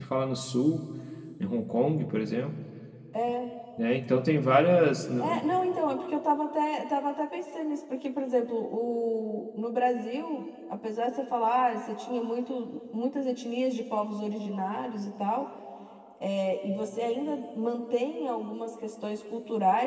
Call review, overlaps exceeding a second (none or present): none